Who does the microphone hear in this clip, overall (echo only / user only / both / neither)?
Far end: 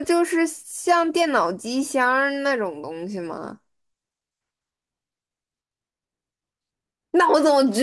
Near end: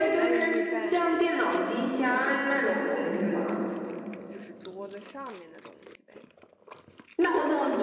both